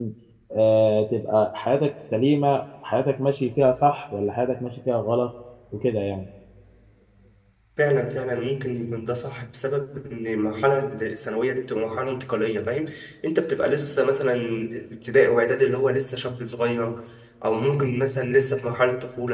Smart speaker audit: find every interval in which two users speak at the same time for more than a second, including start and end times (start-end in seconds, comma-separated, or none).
none